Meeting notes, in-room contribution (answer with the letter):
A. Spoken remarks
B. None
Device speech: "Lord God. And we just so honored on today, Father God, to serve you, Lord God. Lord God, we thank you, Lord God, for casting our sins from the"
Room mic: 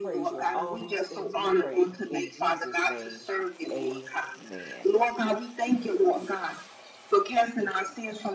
A